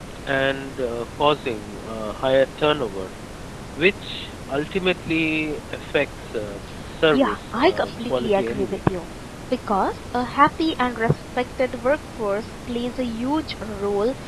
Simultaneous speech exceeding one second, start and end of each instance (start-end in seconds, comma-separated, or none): 7.1-8.8